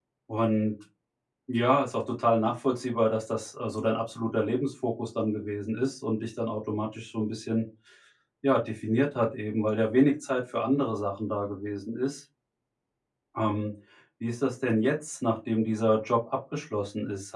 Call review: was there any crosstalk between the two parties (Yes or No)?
No